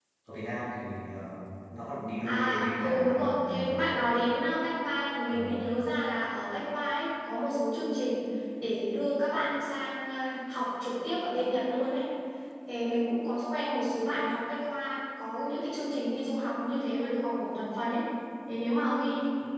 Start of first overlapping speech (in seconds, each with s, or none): 2.3 s